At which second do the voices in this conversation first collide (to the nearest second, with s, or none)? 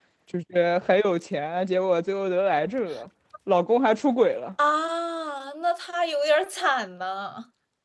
none